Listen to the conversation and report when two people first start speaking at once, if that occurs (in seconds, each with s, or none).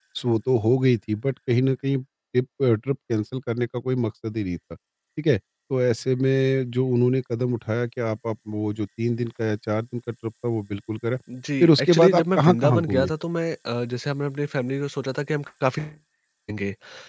11.6 s